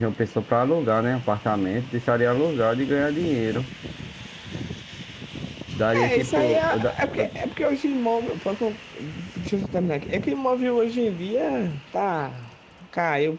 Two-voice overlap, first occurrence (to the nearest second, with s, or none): 6 s